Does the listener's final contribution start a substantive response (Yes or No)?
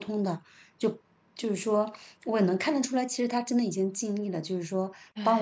No